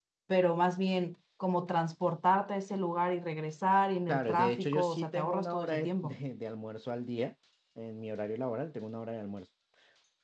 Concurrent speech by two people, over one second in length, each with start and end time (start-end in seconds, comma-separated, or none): 4.1-6.2